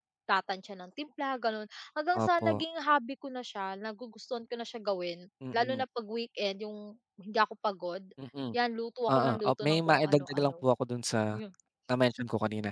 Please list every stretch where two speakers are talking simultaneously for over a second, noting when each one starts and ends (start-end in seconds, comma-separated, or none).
9.1-10.5